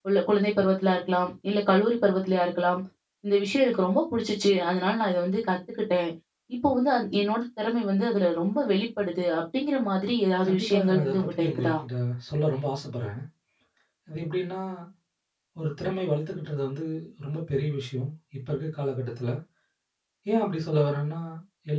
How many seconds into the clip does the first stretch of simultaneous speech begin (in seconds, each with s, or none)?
10.4 s